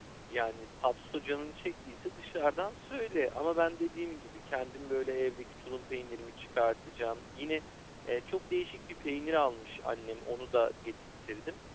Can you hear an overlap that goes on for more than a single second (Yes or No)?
No